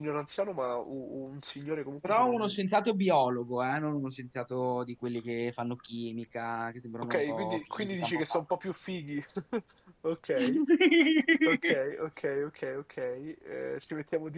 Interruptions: present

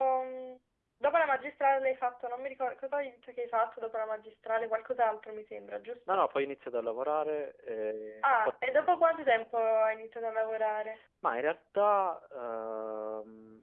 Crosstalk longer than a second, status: none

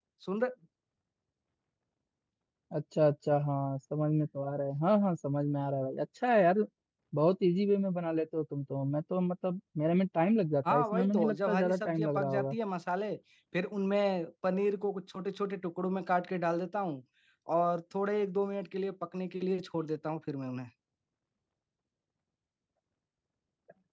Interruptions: present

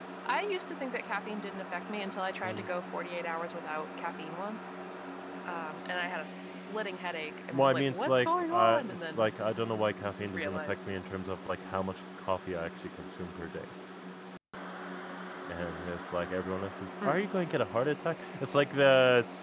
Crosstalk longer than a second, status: present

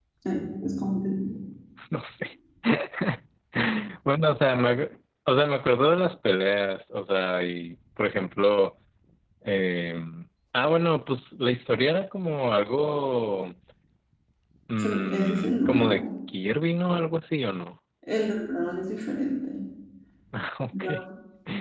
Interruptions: present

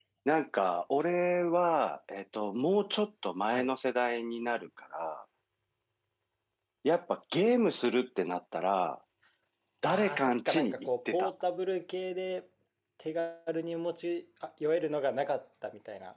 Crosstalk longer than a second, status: present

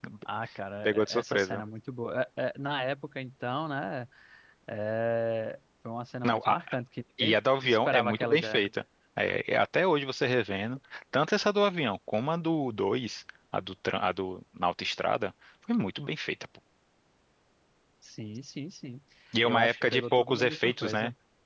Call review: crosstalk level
present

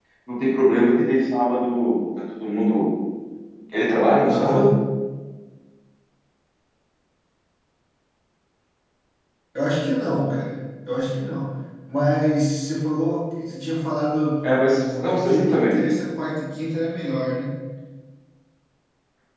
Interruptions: present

